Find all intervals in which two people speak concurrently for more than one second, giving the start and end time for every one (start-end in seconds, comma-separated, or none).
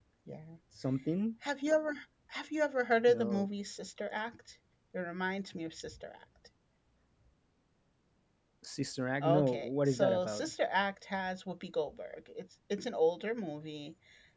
9.2-10.5